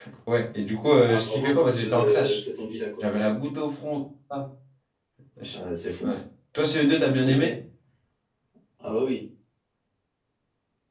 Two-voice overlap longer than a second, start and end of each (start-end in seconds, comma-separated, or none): 1.1-2.3